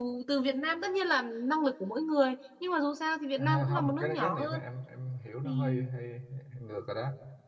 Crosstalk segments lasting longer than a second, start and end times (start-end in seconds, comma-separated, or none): 3.4-4.6